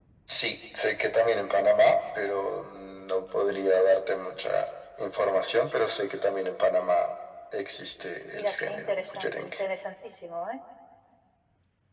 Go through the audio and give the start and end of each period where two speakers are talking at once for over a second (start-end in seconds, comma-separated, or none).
8.3-9.5